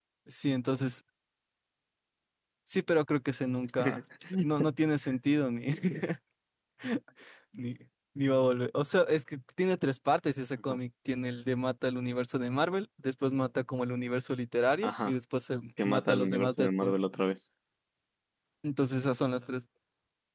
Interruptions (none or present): present